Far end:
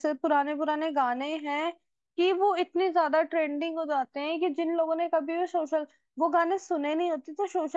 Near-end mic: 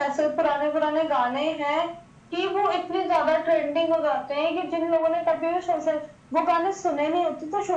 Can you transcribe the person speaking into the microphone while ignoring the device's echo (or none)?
none